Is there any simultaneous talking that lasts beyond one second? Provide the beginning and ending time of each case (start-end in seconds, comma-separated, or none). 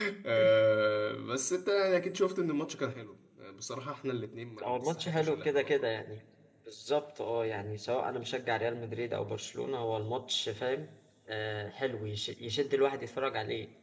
4.6-5.9